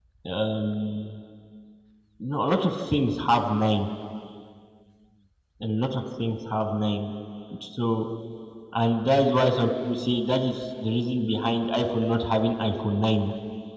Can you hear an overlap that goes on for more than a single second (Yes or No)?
No